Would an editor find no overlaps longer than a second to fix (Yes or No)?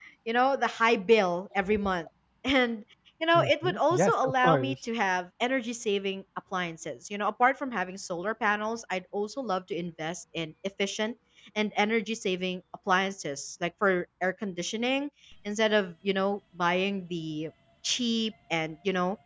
No